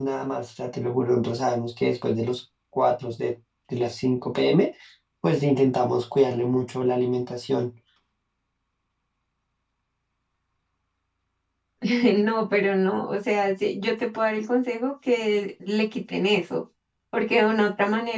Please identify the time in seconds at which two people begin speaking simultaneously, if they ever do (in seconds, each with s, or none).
none